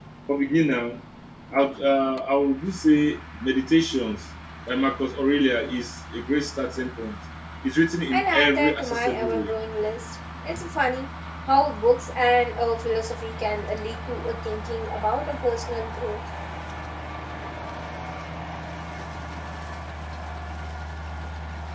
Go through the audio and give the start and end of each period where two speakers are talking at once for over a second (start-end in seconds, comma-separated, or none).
8.1-9.5